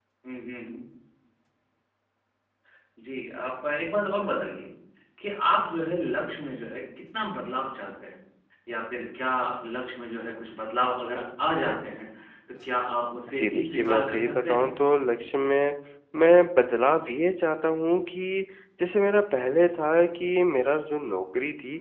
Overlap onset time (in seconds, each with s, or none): 13.4 s